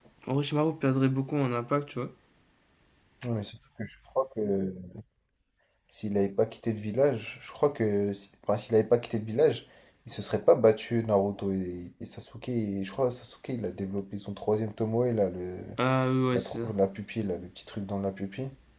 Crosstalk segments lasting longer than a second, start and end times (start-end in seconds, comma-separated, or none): none